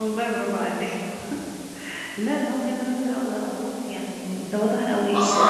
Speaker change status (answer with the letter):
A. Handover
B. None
A